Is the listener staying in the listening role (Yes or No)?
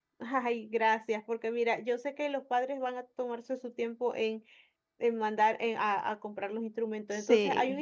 Yes